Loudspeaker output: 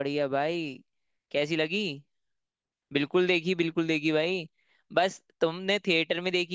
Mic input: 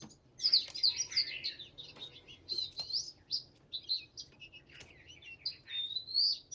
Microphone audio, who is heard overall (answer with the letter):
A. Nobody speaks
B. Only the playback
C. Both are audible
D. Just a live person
A